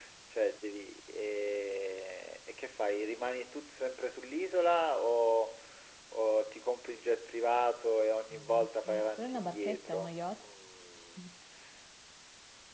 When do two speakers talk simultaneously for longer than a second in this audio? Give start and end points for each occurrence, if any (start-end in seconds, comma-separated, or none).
9.0-10.5